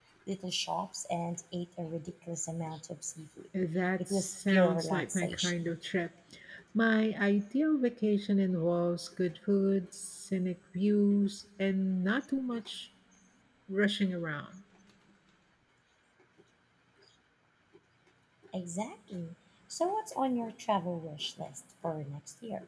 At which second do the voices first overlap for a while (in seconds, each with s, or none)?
4.0 s